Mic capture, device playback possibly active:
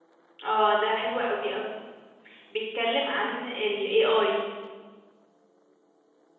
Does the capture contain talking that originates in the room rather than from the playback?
Yes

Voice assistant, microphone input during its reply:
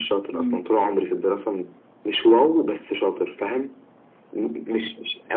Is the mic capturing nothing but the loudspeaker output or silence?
No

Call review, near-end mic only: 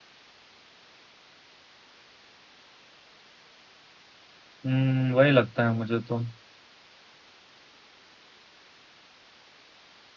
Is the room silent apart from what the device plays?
No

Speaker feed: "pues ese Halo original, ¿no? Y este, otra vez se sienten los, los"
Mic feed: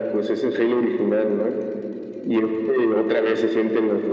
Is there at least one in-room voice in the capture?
No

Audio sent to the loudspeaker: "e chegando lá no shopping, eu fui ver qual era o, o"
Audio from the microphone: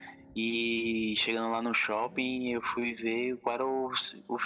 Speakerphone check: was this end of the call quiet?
Yes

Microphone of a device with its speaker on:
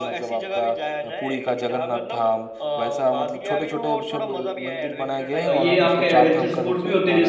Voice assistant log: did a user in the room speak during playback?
Yes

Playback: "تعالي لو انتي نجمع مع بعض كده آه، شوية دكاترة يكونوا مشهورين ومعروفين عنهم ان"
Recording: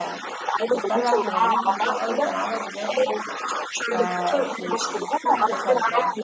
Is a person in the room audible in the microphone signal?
Yes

